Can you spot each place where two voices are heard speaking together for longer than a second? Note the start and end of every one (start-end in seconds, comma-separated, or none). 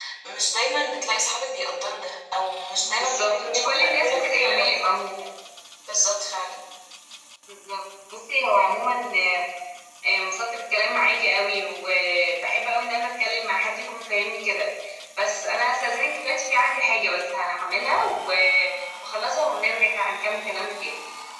2.9-4.8